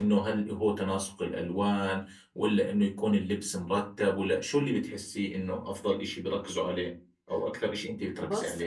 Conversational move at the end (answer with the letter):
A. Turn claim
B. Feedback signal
A